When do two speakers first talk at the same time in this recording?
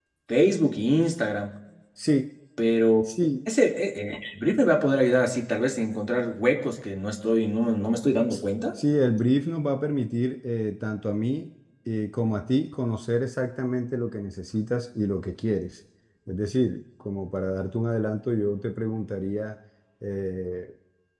none

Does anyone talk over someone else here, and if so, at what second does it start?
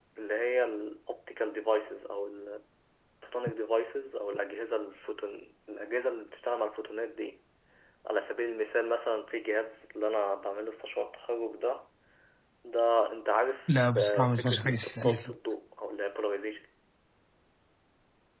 13.7 s

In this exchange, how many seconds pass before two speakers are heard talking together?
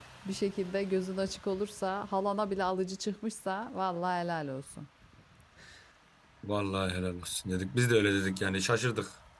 none

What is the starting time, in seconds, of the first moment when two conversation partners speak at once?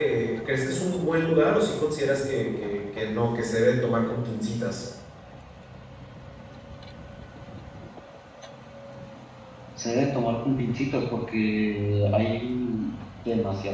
none

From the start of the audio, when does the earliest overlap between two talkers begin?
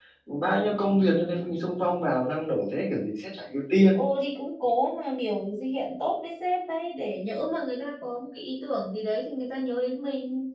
none

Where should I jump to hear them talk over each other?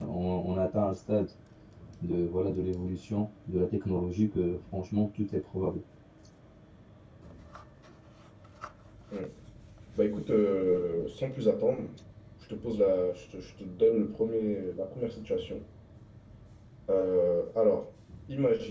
none

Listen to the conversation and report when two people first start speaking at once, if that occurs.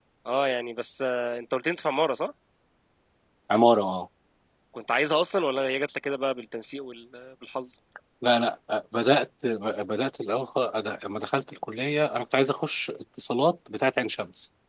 none

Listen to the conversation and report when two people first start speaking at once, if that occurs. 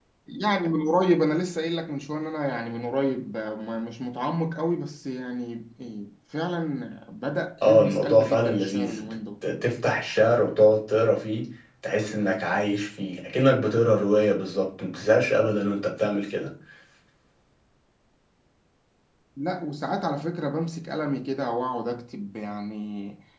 7.6 s

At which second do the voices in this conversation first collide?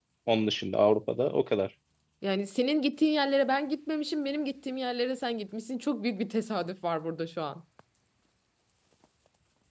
none

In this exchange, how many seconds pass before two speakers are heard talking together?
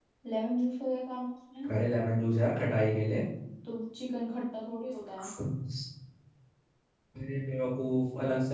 none

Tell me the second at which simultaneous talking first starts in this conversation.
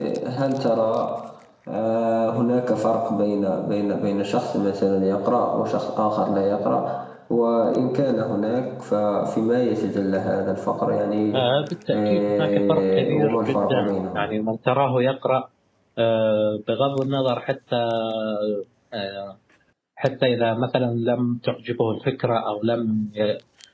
11.9 s

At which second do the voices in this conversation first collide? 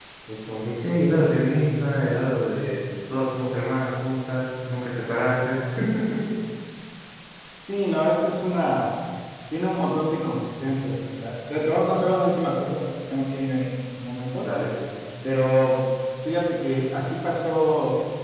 none

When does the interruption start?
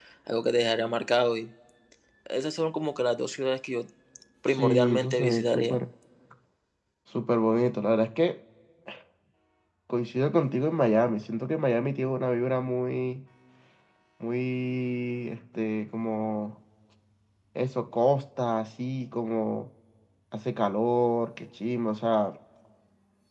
4.5 s

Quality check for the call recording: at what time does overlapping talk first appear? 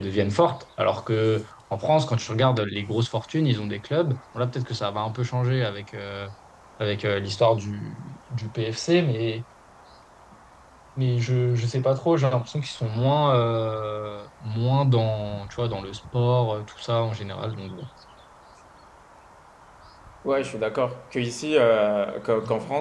none

